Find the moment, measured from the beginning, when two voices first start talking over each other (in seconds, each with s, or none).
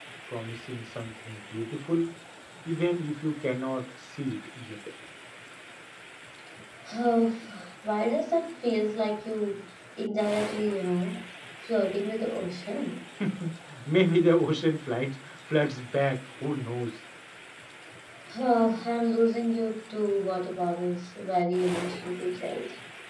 none